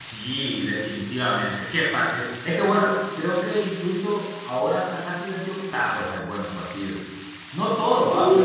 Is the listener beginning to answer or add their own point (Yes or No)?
No